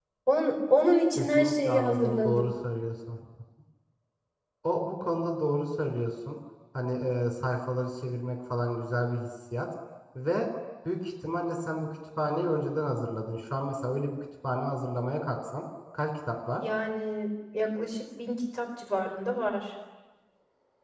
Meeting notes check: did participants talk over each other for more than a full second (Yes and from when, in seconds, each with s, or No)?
Yes, from 1.2 s